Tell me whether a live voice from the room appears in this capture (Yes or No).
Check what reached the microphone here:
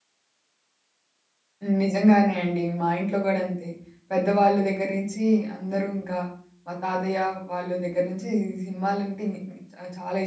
Yes